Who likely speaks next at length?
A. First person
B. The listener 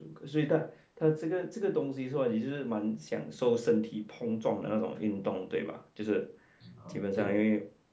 A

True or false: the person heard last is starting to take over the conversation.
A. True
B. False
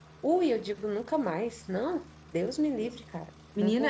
A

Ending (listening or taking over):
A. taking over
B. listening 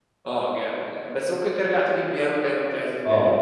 A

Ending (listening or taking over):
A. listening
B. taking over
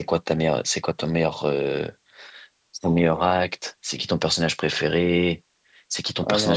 A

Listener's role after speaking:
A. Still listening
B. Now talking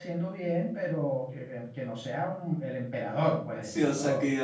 B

